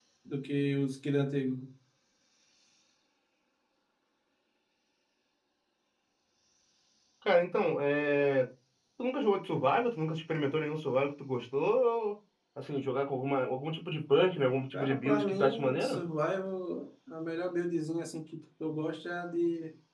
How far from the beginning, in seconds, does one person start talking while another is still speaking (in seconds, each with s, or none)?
14.7 s